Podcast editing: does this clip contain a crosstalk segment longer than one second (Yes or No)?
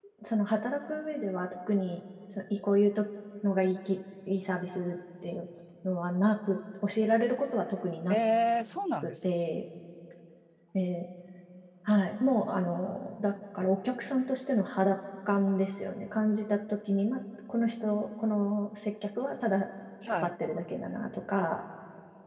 No